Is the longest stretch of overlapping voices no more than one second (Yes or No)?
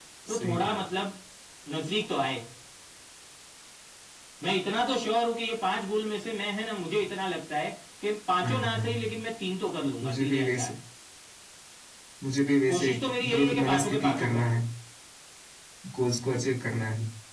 No